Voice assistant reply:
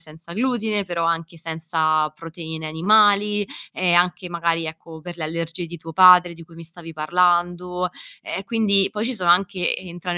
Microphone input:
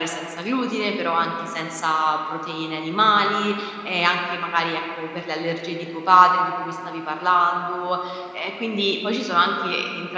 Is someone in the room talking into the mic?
No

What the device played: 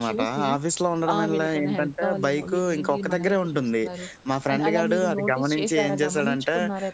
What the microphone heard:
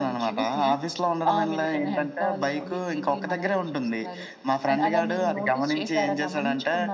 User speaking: No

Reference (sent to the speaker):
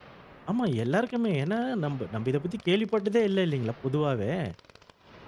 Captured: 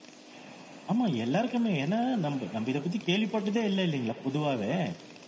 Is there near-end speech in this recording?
No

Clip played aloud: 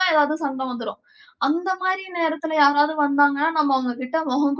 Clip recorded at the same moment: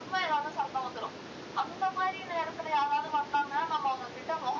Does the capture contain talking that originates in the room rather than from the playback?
No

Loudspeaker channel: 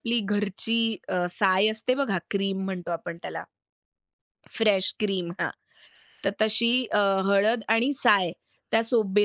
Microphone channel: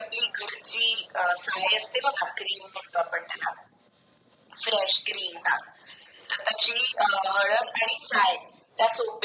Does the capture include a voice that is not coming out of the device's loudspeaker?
No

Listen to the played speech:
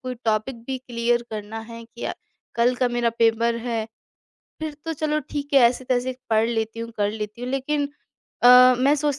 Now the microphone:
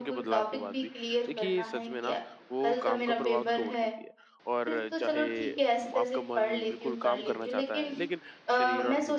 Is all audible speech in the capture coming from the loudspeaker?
No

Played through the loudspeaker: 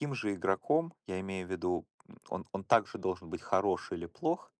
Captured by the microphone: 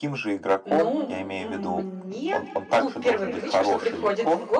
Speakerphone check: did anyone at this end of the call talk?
Yes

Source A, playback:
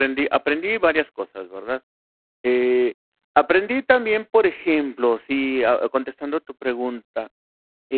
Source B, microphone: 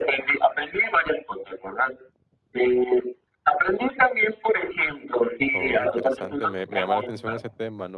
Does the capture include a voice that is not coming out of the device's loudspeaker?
Yes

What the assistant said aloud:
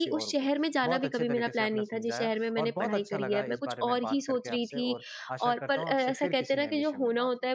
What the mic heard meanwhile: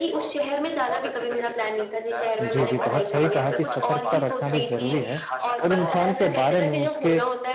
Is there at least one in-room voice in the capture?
Yes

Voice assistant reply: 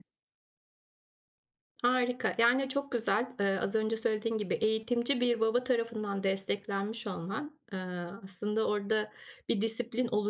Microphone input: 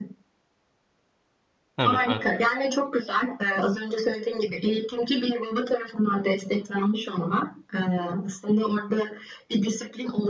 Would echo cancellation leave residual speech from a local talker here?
Yes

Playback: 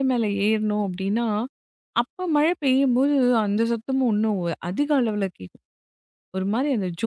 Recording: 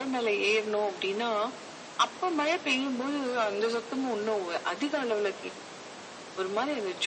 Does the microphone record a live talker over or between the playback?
No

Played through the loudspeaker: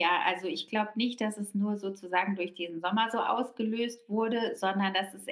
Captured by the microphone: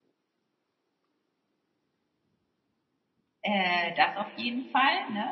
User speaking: Yes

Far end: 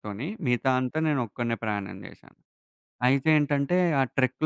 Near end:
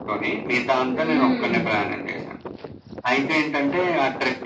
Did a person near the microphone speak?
Yes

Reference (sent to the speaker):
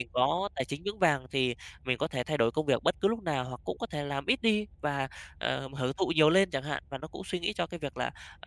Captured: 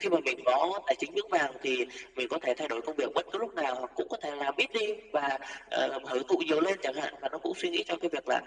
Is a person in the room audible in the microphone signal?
No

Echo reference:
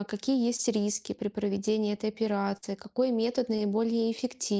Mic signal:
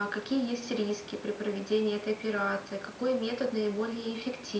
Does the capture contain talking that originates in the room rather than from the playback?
No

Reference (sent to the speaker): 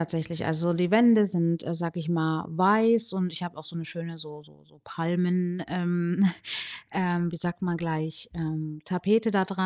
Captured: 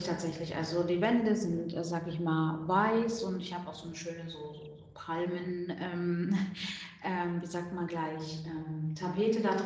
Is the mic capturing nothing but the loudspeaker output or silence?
Yes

